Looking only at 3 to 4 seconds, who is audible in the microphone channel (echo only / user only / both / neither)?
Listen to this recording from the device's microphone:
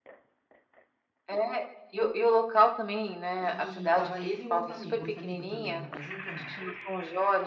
both